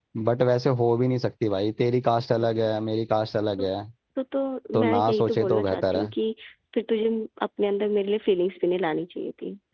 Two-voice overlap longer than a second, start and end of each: 4.7-6.1

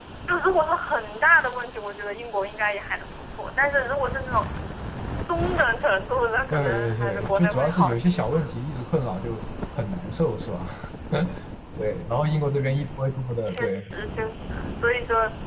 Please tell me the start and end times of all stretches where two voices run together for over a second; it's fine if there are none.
6.5-8.4

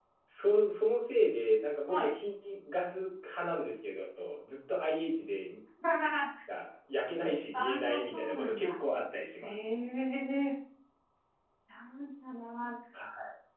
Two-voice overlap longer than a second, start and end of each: 7.5-8.8

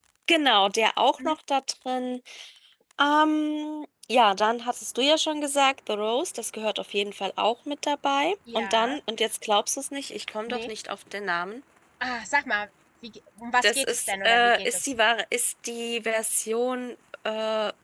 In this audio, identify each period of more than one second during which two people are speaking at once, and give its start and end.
13.6-14.9

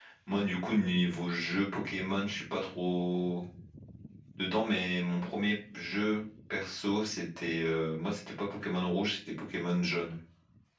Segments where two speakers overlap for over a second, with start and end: none

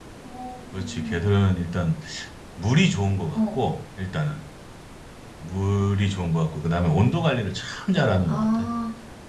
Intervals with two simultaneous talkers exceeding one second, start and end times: none

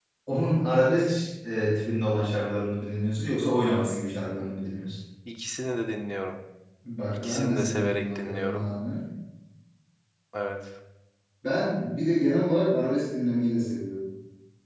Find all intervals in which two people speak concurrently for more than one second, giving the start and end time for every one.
7.1-8.7

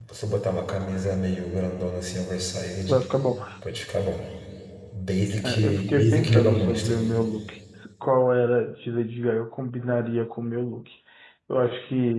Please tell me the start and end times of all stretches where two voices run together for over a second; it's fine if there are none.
5.4-7.0

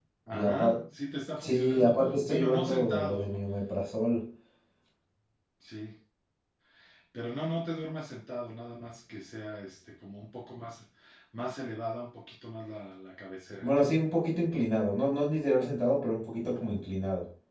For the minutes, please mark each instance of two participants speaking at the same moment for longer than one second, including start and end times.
1.4-3.4

